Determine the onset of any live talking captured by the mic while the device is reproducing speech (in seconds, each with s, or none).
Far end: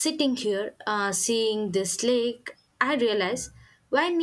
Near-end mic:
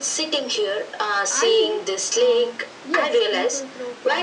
1.3 s